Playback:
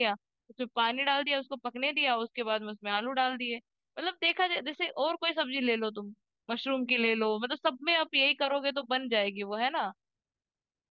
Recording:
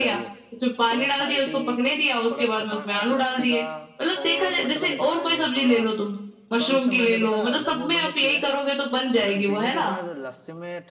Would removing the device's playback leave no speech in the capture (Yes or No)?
No